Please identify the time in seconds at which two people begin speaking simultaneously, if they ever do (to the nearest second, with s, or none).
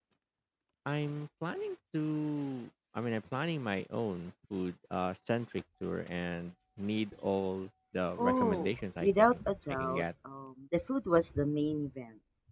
8 s